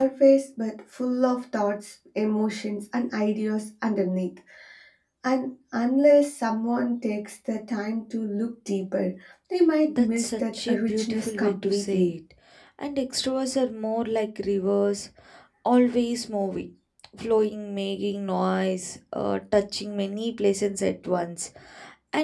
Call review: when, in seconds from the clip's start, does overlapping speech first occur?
10 s

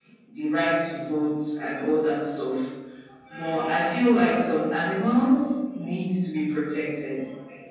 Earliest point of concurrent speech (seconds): none

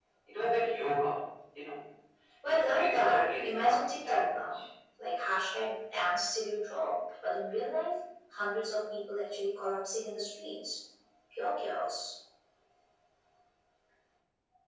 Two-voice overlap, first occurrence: 3 s

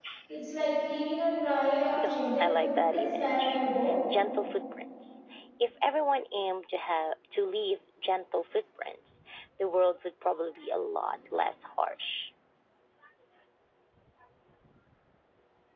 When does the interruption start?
2 s

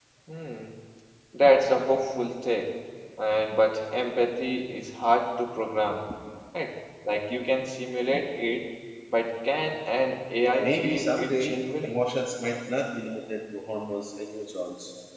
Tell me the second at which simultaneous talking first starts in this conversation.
11 s

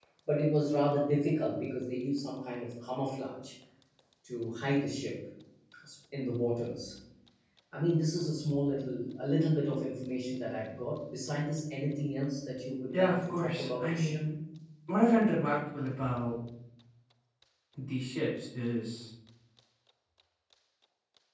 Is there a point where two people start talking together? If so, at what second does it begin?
13 s

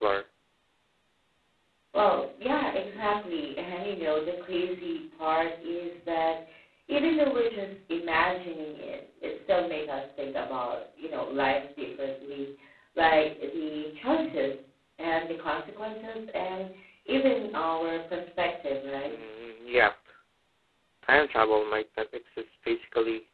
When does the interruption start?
none

